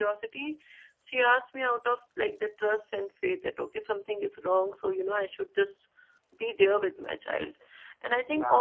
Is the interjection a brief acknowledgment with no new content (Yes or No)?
Yes